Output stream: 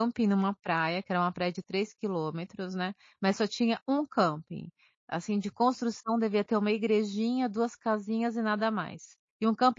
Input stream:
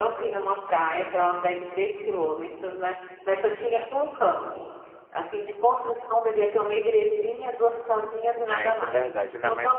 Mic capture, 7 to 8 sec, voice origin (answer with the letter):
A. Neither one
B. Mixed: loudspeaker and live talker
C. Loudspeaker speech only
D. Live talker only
C